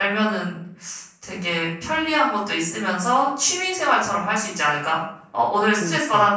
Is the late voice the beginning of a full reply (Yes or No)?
No